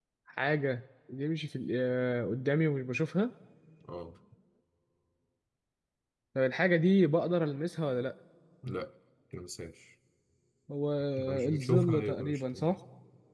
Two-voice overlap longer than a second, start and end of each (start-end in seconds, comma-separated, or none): 11.5-12.8